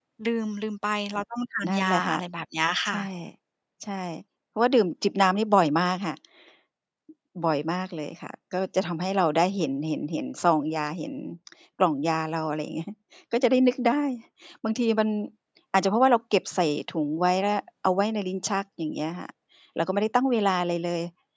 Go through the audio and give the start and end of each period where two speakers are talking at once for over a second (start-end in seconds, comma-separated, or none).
none